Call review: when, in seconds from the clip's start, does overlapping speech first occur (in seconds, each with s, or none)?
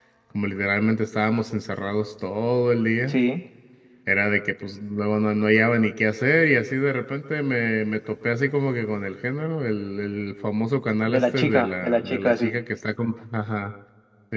11.1 s